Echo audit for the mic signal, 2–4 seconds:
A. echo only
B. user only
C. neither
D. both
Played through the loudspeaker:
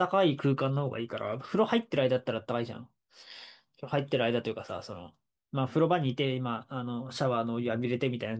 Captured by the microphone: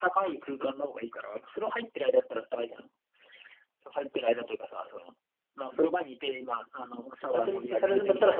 A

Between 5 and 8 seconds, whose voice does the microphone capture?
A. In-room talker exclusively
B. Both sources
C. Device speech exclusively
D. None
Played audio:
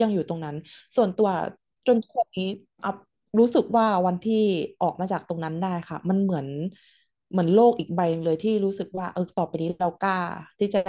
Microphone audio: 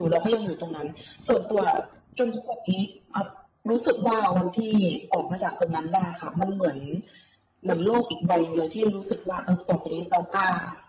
C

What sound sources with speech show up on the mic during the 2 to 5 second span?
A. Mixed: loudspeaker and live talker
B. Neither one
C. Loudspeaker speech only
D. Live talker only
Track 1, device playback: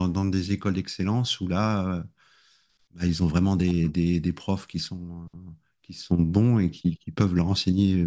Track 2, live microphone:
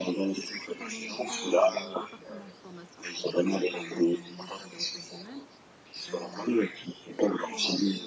A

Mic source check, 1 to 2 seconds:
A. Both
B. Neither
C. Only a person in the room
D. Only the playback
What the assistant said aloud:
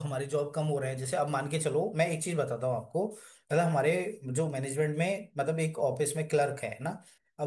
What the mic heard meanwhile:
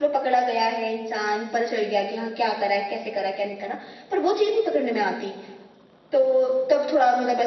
C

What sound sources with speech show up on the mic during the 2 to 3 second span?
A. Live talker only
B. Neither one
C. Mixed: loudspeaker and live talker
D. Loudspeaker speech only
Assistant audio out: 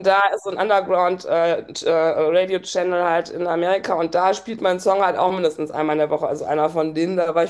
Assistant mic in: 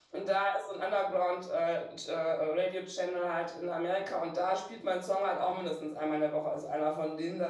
D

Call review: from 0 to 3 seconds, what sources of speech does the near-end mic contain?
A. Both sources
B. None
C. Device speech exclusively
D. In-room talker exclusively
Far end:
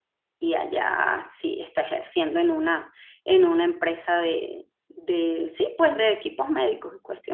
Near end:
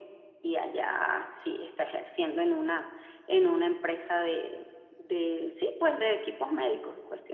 C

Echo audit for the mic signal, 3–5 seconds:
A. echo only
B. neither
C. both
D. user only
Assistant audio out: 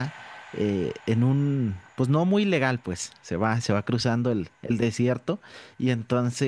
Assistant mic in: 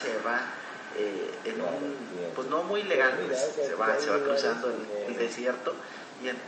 C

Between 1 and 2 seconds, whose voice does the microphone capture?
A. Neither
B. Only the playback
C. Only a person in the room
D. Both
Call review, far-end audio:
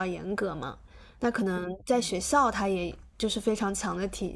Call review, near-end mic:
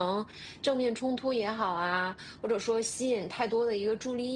C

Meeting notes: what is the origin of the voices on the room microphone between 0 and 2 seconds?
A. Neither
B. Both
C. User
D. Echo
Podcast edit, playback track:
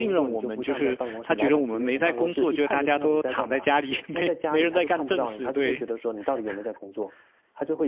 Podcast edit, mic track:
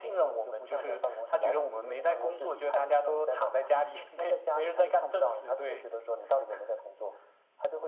D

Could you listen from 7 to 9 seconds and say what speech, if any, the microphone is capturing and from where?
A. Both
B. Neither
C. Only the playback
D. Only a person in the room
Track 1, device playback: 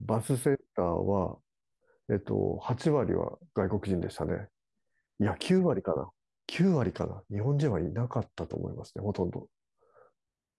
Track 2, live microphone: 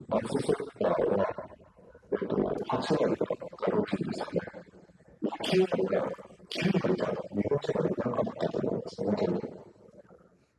C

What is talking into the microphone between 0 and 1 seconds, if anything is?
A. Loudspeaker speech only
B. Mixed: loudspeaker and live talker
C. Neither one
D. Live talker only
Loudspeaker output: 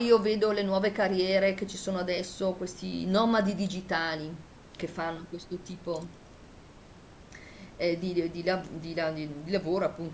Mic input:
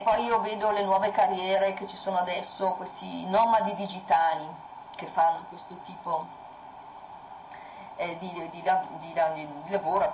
A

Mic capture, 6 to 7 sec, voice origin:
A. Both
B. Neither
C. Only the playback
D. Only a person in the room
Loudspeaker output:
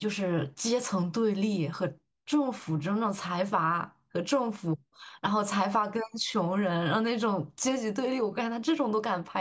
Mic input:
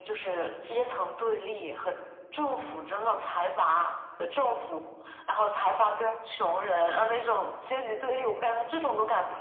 C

